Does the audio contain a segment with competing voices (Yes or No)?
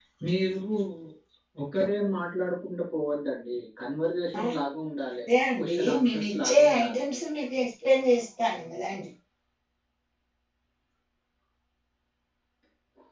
Yes